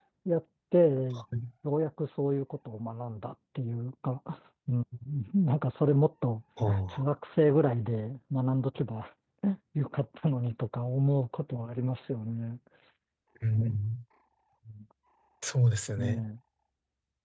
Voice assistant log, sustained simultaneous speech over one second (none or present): none